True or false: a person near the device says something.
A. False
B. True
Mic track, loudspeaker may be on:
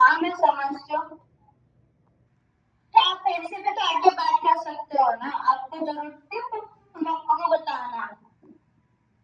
A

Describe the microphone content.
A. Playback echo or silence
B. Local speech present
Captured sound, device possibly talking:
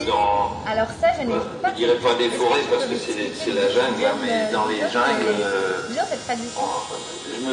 B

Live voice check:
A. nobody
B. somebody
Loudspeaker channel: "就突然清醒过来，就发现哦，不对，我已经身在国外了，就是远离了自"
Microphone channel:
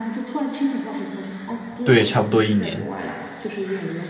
B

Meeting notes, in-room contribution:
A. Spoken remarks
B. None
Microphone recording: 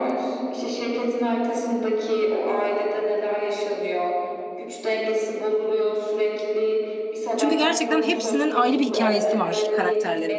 A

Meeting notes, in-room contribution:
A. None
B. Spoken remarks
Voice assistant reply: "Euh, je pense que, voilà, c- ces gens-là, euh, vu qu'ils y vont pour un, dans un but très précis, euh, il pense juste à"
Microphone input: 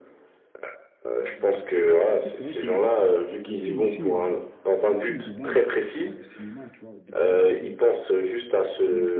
B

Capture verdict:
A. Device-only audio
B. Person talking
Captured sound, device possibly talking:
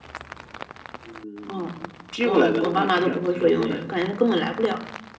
B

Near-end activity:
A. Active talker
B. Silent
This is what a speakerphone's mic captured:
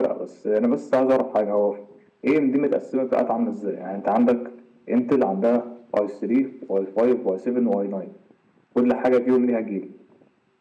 B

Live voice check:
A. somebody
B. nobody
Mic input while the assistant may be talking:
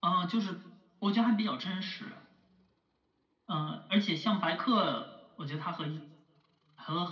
B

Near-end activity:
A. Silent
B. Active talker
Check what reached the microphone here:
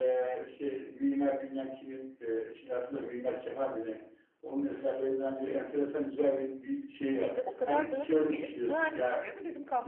B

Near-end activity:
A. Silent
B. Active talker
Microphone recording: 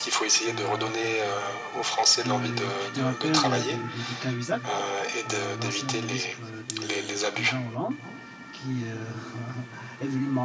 B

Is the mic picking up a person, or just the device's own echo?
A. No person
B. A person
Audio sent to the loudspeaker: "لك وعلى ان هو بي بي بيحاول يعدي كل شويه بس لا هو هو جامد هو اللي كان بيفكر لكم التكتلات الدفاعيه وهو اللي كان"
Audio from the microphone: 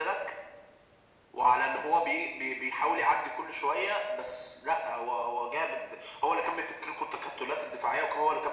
A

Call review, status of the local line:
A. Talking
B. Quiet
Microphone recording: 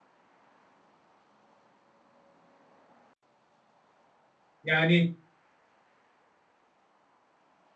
A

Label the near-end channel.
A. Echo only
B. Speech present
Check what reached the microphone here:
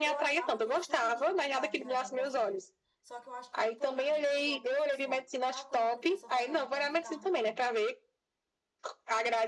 B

